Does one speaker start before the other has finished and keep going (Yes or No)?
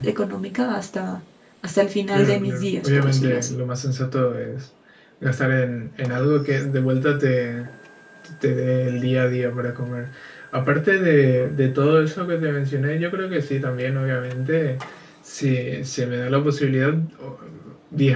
Yes